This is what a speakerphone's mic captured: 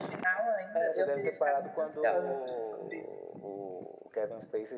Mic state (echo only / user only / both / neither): echo only